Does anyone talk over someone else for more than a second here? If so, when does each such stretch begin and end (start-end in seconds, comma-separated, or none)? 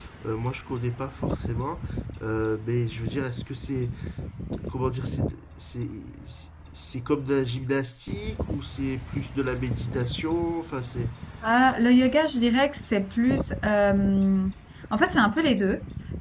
none